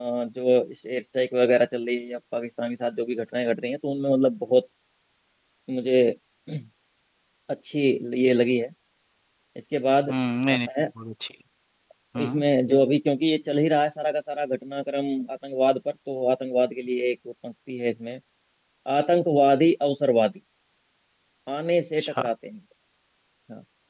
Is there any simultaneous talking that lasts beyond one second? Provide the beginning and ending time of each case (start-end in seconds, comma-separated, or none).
none